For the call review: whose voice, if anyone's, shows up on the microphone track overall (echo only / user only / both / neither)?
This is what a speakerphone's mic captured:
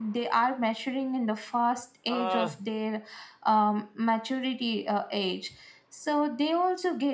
both